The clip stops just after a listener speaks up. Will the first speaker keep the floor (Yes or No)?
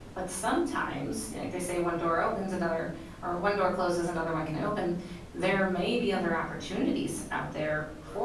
Yes